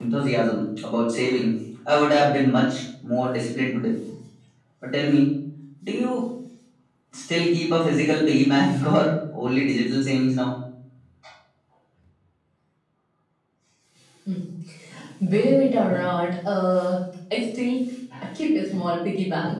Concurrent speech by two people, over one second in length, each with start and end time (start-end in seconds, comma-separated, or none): none